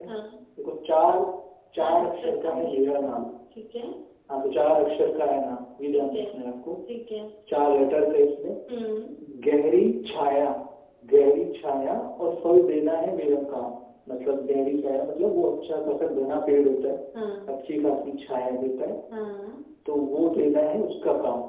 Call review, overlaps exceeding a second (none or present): present